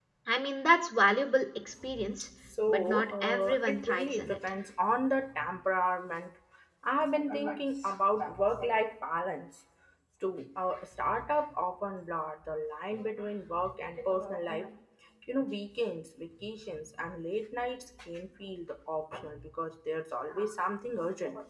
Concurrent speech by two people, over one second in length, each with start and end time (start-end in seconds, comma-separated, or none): 2.7-4.4